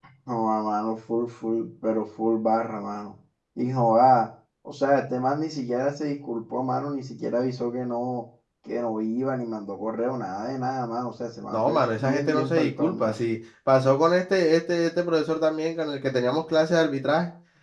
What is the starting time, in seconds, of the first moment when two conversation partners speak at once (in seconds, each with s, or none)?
11.5 s